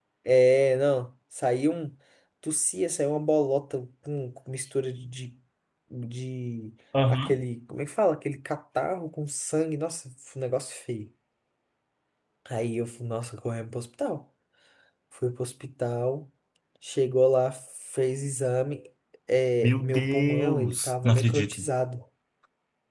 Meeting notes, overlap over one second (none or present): present